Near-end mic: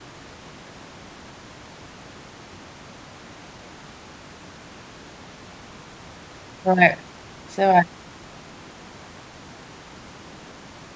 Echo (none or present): none